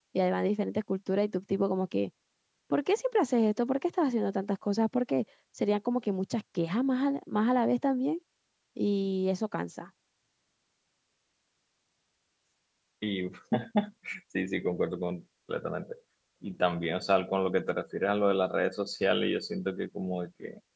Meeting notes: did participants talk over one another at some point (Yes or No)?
No